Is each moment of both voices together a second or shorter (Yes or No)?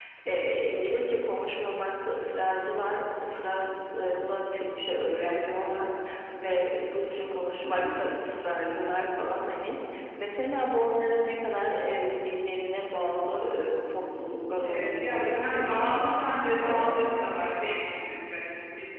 No